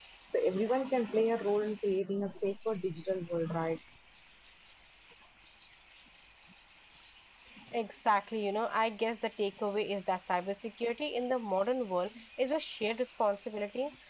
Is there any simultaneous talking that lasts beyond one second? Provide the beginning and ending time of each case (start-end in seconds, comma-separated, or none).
none